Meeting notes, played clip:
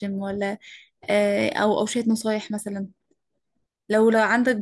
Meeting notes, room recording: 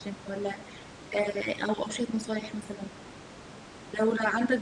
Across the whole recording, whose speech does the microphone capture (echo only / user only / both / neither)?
echo only